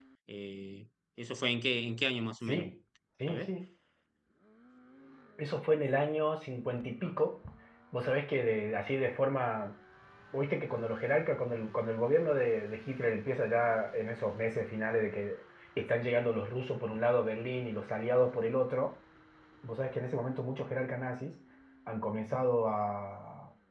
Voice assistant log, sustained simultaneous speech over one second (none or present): none